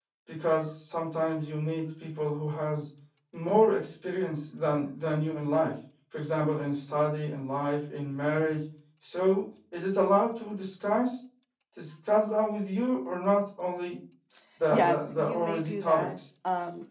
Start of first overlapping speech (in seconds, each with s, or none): 14.7 s